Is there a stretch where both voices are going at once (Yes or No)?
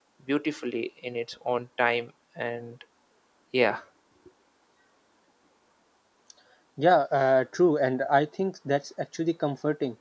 No